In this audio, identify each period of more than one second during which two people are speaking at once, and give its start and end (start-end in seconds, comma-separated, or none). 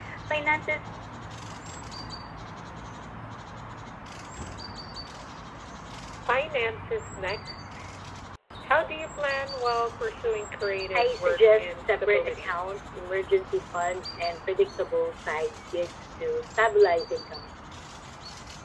10.9-12.6